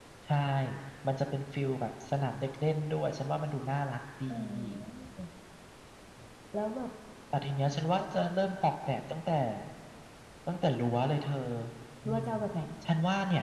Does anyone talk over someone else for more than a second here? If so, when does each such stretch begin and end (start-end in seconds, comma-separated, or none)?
none